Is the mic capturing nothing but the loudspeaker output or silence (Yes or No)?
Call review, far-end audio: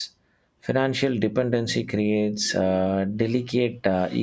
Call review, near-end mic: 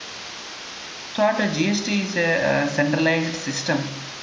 No